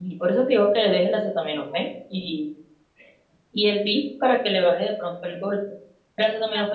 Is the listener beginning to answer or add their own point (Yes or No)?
Yes